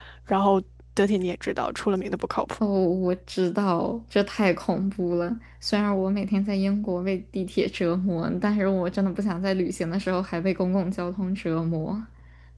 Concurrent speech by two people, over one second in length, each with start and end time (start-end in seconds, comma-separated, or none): none